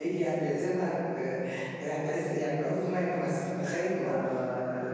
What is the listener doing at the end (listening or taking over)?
taking over